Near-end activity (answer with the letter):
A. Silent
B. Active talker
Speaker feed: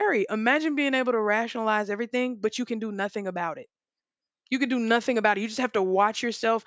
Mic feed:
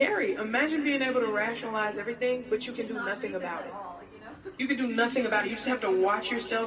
B